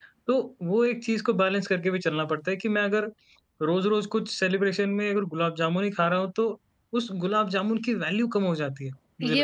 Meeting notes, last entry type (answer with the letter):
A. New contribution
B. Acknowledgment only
A